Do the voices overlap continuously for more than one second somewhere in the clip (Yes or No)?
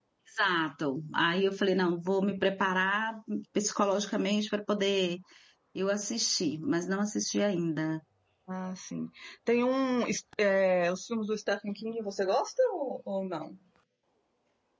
No